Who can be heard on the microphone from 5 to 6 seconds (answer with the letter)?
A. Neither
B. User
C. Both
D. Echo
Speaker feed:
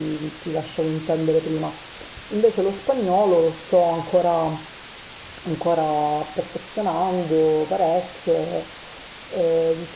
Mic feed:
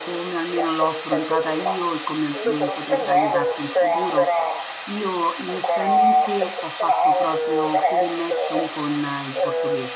C